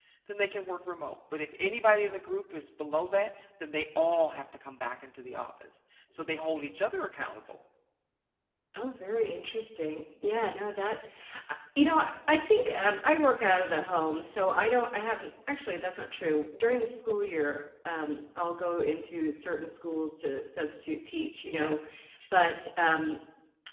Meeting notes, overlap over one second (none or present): none